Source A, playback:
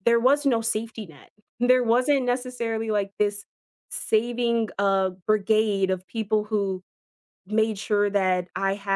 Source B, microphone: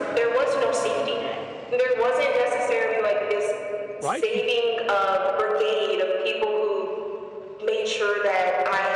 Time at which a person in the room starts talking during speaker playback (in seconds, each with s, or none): 4.0 s